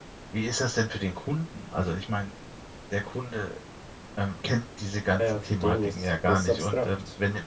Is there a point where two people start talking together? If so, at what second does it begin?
5.1 s

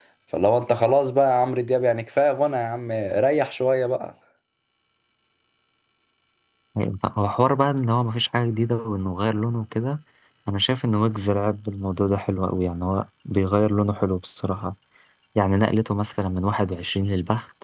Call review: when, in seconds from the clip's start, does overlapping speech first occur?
none

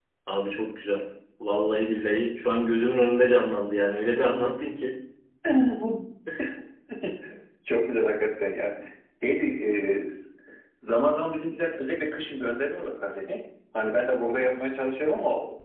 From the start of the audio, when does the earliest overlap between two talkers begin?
none

